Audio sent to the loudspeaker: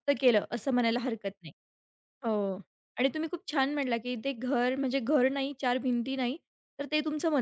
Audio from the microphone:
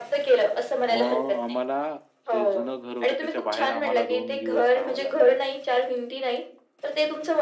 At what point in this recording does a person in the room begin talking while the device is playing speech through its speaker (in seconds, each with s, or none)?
0.9 s